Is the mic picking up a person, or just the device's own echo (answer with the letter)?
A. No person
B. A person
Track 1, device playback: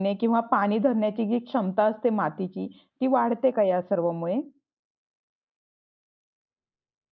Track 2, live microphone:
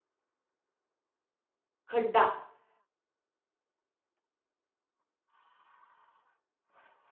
B